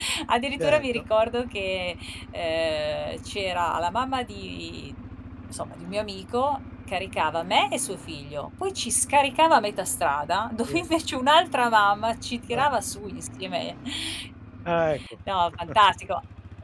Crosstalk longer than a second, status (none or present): none